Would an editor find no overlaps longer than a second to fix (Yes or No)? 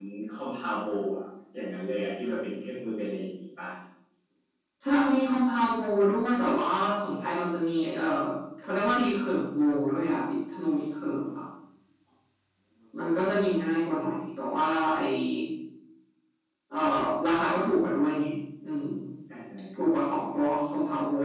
Yes